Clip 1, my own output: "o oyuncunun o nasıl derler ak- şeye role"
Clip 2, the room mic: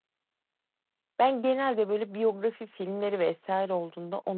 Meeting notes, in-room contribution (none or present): present